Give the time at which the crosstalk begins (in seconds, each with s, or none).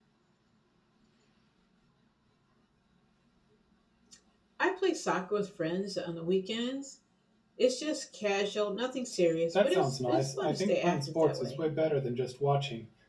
9.5 s